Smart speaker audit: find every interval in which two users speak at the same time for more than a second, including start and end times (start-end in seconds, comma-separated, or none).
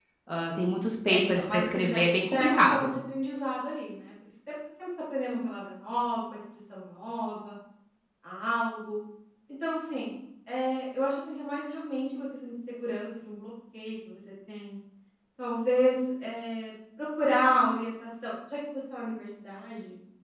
1.1-3.0